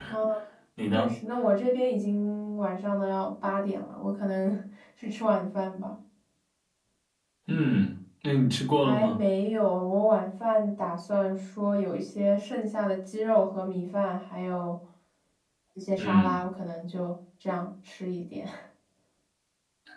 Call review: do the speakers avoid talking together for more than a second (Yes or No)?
Yes